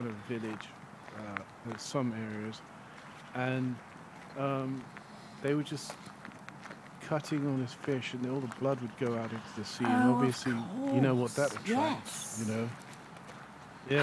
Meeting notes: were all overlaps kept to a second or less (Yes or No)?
No